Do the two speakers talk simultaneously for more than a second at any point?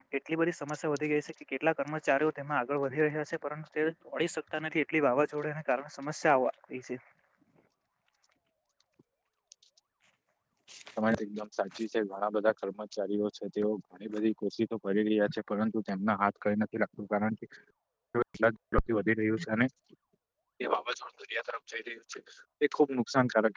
No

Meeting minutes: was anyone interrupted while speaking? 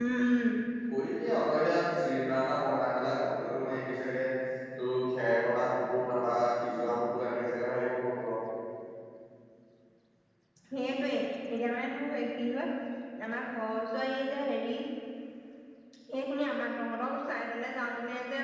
No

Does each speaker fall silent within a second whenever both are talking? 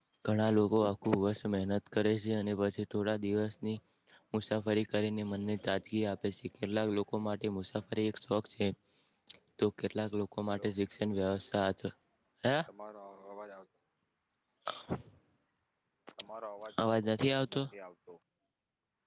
Yes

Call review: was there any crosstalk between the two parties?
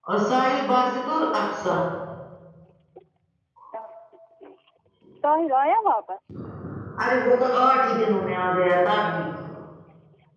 No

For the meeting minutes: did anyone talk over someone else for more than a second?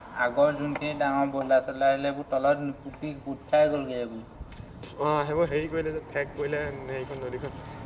No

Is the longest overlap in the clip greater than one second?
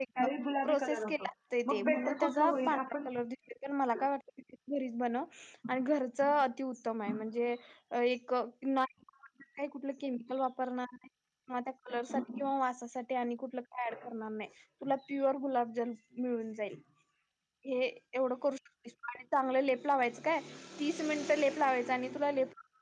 Yes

